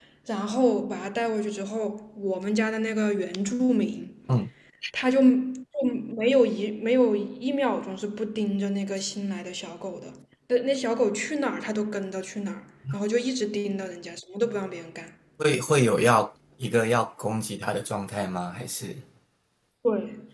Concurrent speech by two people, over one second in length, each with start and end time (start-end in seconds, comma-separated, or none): none